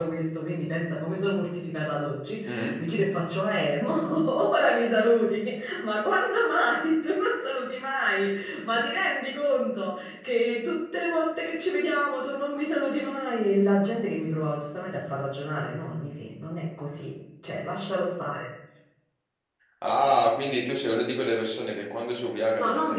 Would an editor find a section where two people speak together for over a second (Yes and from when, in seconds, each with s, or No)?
No